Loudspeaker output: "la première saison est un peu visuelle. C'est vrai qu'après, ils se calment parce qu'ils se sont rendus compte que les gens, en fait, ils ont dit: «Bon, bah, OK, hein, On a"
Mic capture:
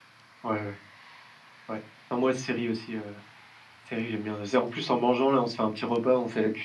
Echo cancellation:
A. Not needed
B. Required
A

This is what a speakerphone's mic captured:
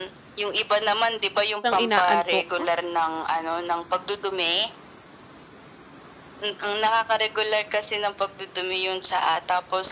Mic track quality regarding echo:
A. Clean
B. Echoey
B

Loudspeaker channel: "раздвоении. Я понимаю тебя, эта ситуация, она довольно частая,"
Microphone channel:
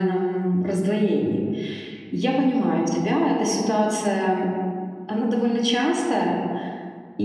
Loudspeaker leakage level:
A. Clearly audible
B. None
A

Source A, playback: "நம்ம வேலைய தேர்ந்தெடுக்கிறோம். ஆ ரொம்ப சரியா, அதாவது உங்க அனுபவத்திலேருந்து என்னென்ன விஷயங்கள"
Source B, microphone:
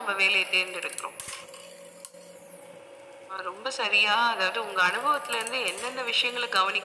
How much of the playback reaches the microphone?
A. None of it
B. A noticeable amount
B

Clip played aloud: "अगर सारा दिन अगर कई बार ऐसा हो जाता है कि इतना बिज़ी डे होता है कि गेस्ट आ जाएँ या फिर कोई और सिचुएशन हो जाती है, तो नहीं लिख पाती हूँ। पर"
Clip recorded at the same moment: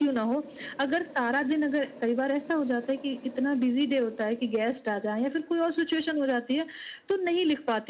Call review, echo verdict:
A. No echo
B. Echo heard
B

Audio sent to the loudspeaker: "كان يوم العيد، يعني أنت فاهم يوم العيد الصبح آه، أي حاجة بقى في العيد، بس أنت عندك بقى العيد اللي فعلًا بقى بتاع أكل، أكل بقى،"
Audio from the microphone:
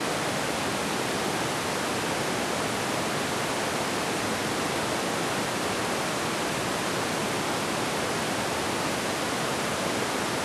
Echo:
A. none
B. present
A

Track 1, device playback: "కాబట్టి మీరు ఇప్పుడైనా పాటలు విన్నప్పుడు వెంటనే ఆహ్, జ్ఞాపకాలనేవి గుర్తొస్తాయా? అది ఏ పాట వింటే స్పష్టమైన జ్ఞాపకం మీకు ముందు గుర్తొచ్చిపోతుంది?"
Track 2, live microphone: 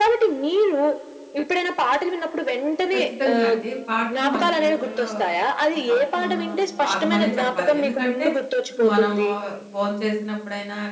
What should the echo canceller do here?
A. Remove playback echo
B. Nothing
A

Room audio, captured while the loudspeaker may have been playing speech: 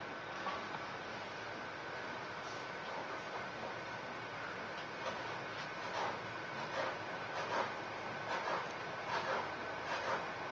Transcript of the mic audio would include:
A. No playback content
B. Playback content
A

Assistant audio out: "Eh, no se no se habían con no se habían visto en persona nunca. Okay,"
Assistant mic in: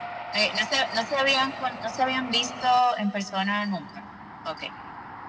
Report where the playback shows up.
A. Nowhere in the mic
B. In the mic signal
B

